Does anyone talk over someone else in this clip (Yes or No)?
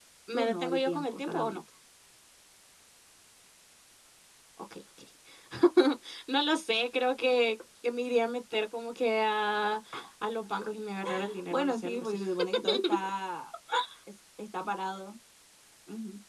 Yes